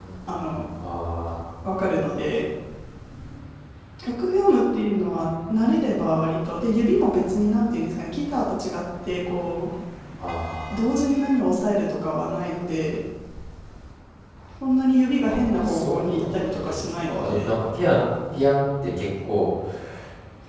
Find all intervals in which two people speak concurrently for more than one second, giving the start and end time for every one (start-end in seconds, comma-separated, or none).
15.2-17.5